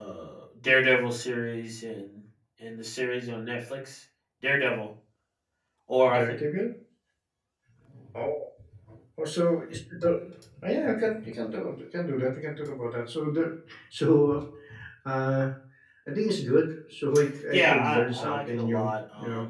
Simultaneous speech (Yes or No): Yes